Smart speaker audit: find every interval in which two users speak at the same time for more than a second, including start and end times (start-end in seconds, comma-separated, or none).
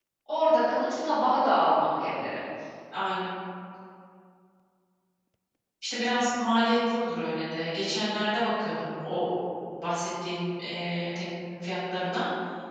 none